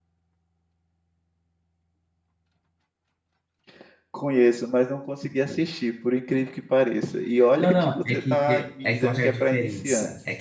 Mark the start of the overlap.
7.5 s

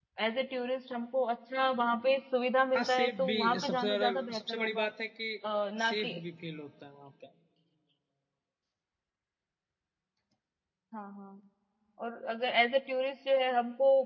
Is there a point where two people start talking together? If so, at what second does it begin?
2.7 s

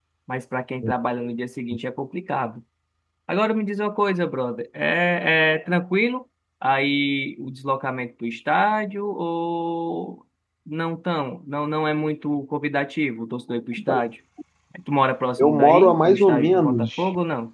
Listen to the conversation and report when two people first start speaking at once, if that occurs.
15.4 s

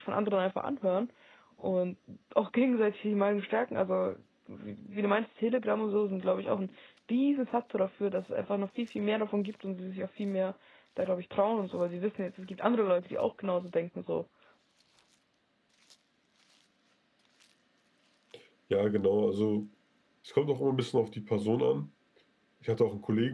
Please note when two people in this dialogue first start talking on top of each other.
none

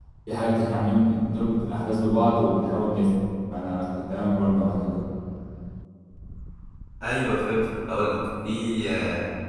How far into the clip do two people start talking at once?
none

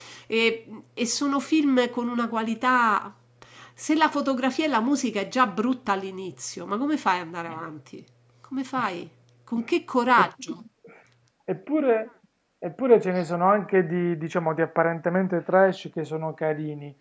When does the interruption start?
none

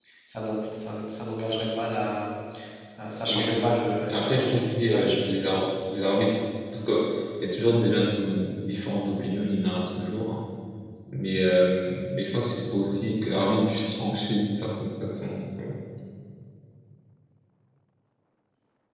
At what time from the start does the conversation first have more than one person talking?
3.3 s

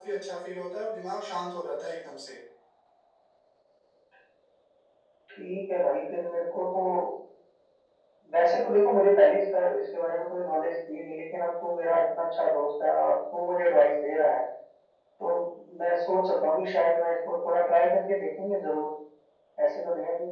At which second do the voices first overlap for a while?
none

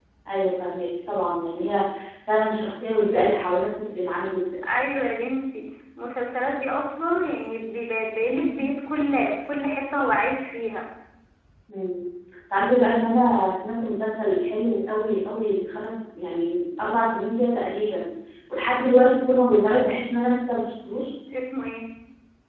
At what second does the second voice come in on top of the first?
none

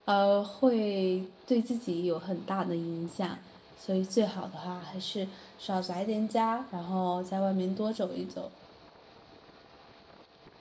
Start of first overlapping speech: none

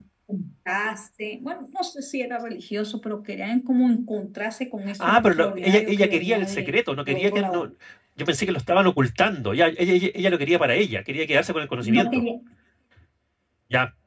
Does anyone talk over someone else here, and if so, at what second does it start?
5.0 s

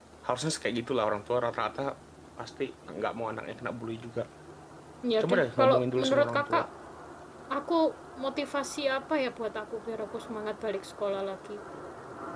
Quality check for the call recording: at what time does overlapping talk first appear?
5.2 s

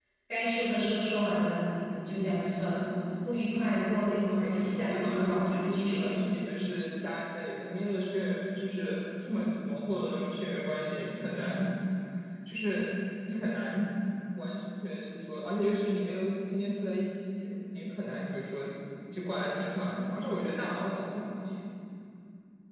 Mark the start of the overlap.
4.3 s

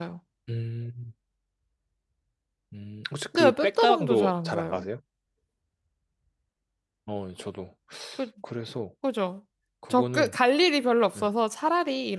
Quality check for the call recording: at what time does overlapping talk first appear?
3.4 s

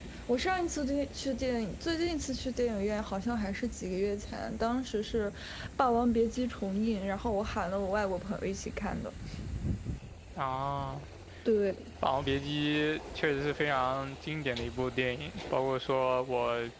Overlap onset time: none

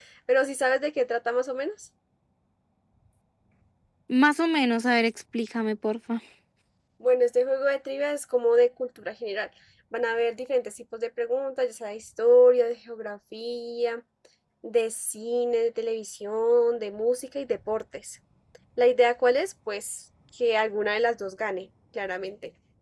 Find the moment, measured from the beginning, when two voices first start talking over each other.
none

